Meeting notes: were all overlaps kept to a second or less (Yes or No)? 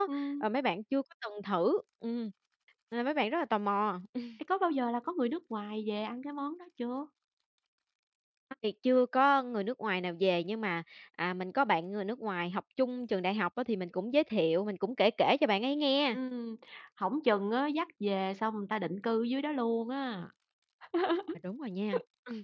Yes